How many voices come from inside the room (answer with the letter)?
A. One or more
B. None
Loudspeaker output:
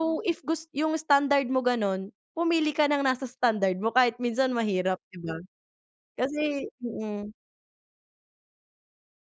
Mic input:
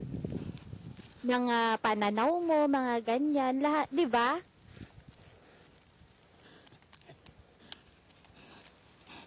A